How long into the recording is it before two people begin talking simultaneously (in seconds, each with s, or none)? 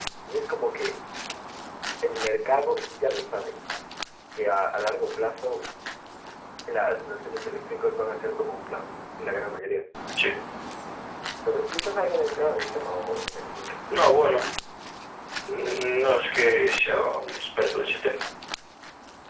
none